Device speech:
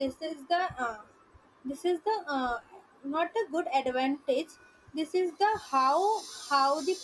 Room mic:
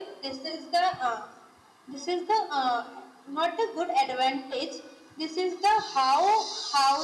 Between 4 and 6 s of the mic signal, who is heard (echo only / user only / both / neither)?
echo only